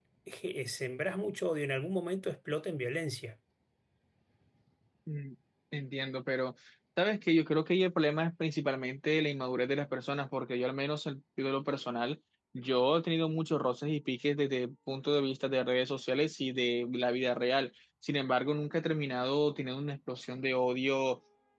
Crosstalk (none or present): none